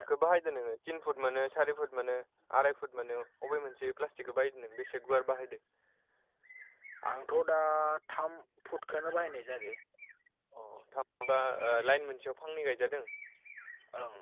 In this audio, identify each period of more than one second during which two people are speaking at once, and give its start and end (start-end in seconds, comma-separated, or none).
none